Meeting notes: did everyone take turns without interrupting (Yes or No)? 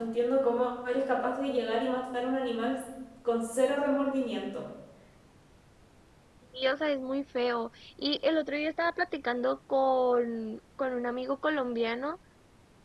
Yes